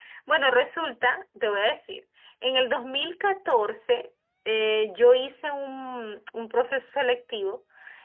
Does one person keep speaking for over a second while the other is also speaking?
No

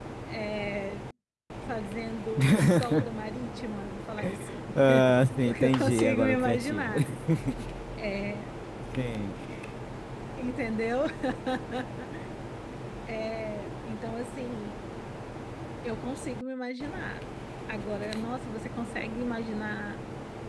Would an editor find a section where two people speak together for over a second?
Yes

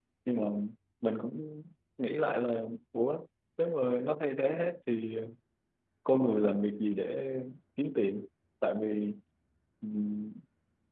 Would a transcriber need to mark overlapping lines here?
No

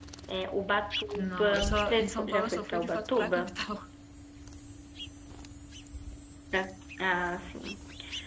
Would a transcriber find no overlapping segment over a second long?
No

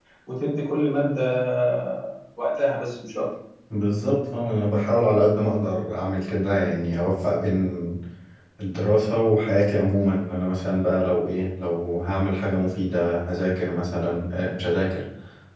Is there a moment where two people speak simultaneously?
No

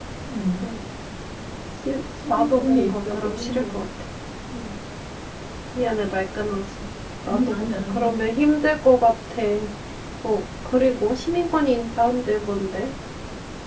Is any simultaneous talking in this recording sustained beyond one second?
Yes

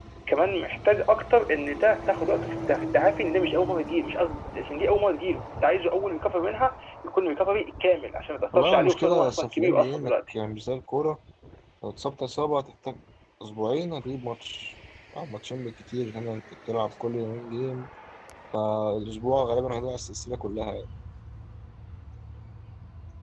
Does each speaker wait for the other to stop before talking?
No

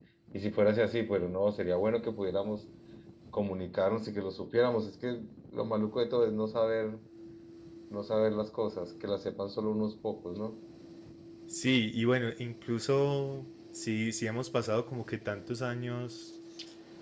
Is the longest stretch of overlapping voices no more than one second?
Yes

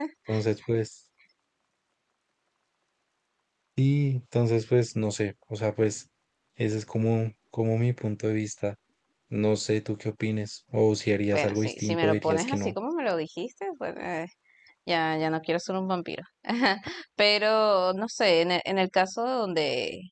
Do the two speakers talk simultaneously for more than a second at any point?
Yes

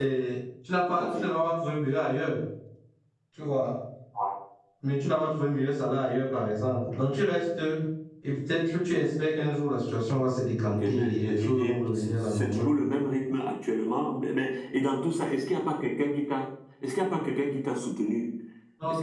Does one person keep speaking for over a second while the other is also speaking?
Yes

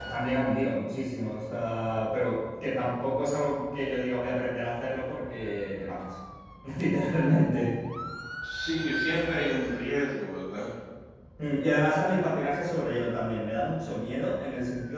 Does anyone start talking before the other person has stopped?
No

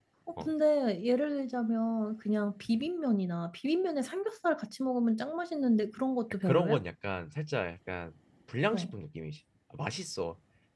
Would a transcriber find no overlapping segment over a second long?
Yes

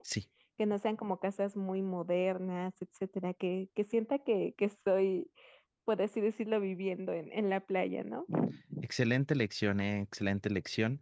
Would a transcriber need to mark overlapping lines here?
No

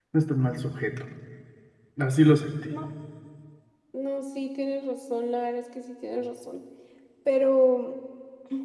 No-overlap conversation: Yes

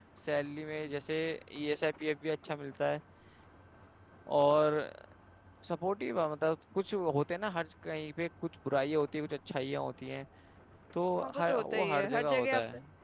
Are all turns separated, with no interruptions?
No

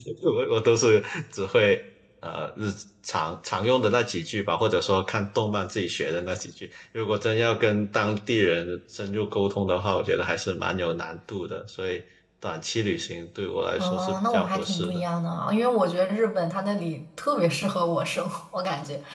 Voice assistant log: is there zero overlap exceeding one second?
No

